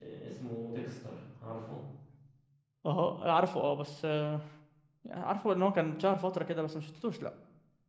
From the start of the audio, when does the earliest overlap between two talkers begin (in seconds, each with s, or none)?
none